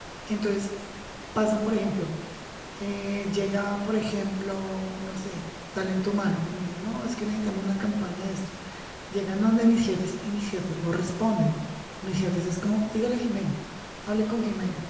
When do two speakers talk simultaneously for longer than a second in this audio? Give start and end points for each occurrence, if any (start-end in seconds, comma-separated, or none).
none